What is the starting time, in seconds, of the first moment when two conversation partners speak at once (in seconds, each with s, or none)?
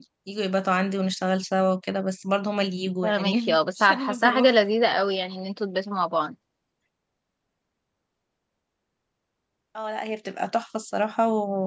3.0 s